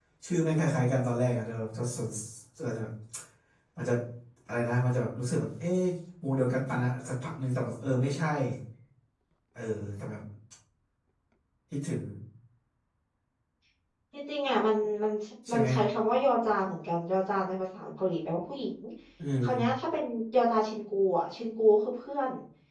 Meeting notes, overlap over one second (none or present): none